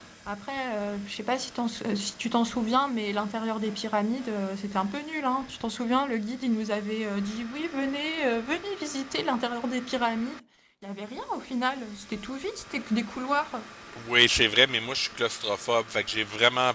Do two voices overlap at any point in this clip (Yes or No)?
No